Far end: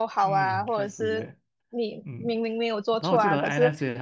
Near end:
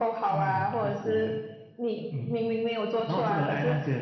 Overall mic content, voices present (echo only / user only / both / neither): echo only